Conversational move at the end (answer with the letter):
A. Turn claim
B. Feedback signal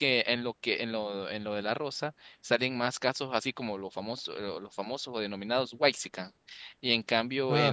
B